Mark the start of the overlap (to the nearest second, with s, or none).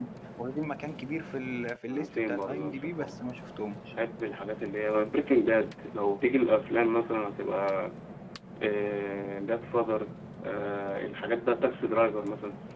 2 s